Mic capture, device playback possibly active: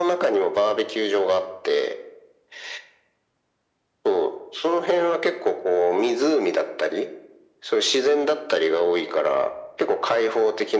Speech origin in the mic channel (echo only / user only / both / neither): echo only